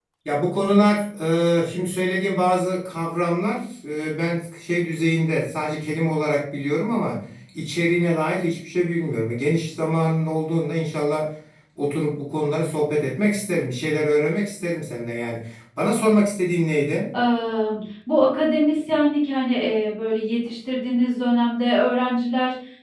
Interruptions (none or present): none